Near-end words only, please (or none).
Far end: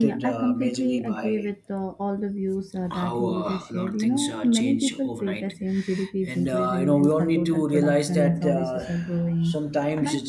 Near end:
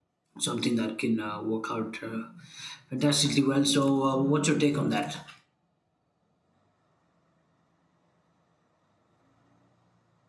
something that can uh, work out uh, fantastically well. So, uh, what's your take on that?